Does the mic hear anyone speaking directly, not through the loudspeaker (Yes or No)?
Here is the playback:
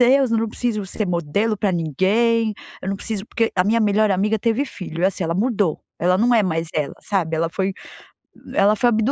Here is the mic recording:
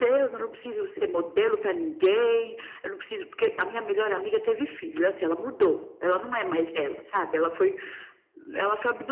No